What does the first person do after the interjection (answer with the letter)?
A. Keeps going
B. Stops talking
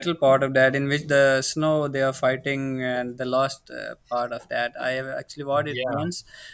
A